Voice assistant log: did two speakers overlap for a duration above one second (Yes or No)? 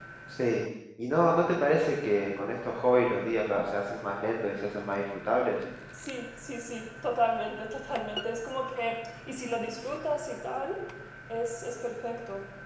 No